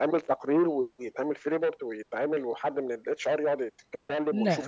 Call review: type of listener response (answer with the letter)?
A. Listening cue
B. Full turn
B